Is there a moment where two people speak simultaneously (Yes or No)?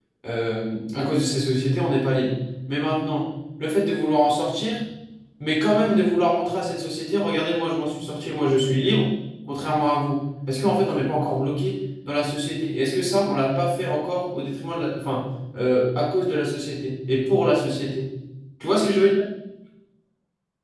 No